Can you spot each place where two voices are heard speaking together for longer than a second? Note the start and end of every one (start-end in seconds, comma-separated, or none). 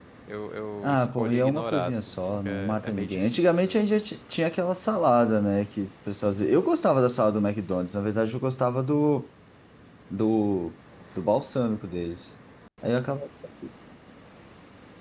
0.8-3.8